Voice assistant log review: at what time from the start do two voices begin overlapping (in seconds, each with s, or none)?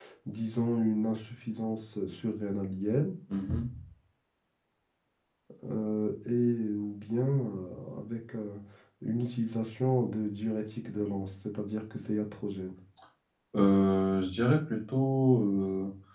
none